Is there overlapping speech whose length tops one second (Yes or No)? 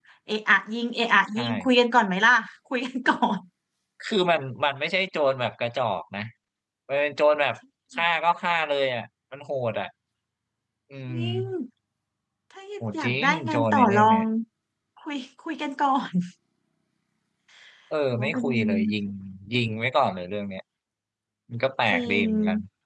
Yes